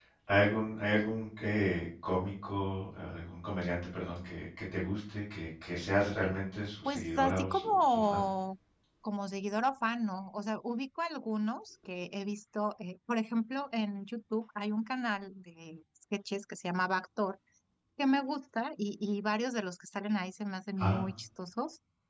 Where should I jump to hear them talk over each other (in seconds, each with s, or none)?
6.8 s